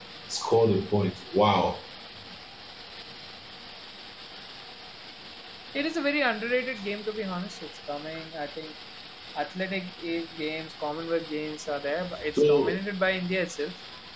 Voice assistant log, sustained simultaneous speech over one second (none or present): none